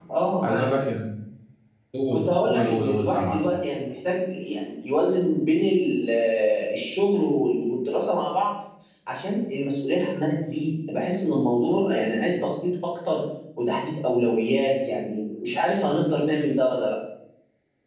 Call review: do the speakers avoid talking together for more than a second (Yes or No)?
No